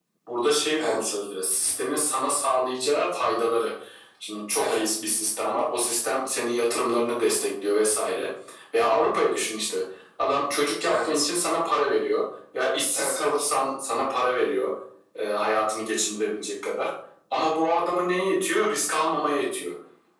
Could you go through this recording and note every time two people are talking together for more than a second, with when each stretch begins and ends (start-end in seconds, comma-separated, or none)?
none